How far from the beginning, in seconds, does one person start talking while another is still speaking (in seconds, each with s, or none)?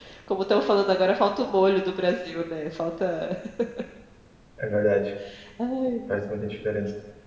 none